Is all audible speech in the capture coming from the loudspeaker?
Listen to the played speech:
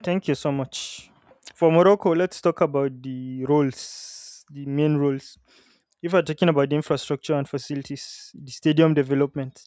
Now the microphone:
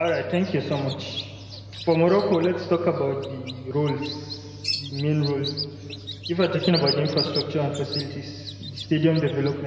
Yes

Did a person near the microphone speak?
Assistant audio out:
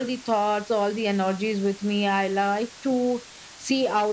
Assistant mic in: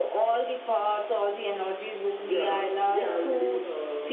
Yes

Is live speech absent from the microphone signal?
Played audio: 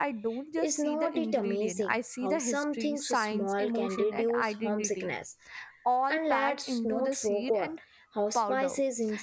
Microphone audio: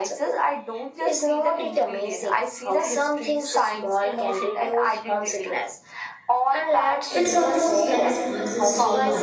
No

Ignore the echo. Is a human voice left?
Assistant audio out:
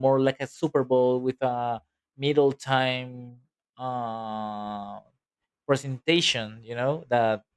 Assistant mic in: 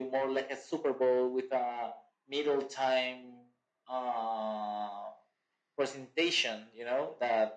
No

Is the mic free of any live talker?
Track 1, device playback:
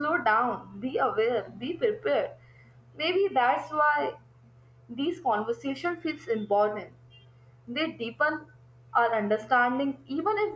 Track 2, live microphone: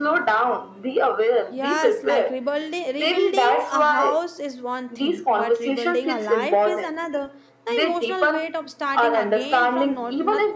No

